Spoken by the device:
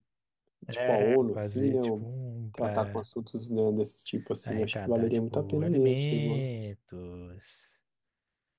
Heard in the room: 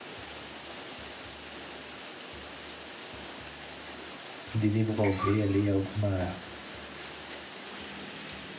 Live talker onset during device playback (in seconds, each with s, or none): 4.5 s